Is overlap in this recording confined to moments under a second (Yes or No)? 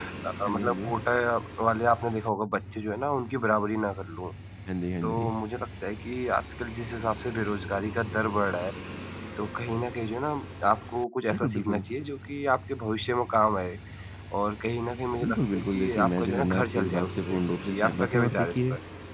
No